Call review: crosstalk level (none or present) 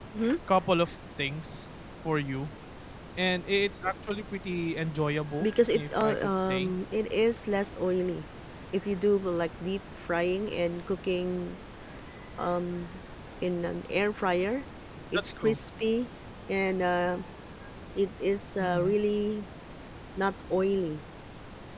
present